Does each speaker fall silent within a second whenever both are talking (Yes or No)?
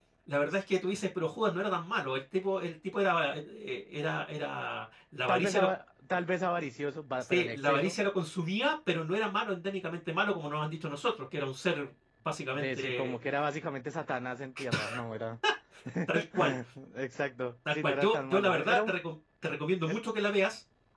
No